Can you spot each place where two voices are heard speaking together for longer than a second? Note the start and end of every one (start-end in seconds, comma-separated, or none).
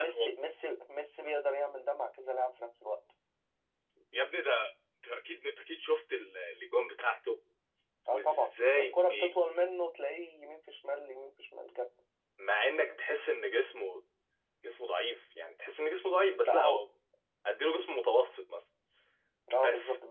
8.1-9.4